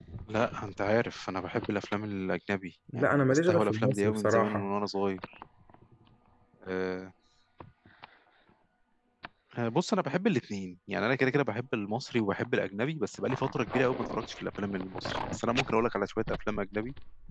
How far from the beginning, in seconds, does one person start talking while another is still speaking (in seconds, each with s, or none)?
2.9 s